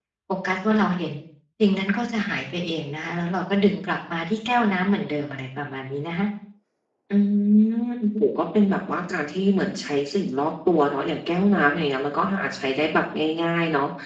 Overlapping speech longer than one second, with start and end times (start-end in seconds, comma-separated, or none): none